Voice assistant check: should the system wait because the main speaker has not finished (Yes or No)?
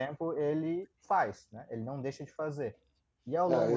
No